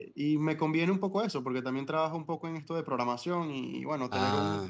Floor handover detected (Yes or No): No